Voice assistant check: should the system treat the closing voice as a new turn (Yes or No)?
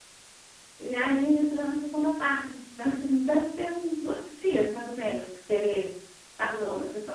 Yes